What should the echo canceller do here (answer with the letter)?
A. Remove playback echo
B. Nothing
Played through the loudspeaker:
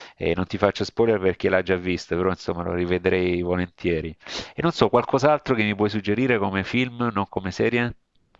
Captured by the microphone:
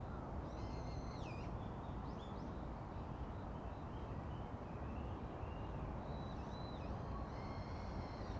B